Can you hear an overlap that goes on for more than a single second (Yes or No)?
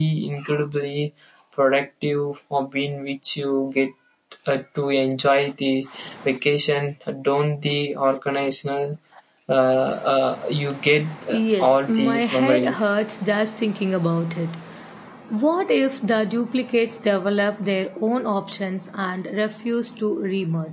Yes